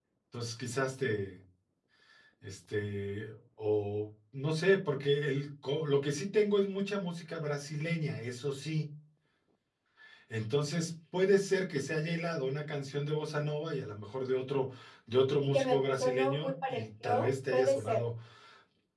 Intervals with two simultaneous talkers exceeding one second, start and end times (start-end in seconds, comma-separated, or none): 15.4-18.0